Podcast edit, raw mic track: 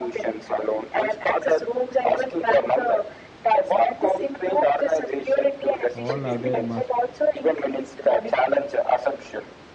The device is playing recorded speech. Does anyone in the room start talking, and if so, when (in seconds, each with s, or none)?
5.9 s